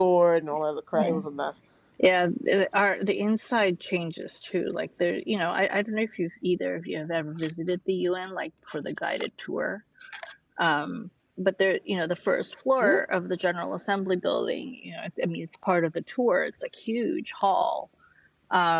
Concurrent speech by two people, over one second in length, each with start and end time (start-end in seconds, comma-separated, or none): none